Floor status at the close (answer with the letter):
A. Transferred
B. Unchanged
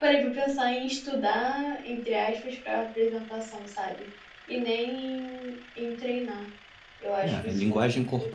A